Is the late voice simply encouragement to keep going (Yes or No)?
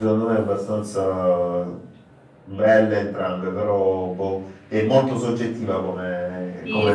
No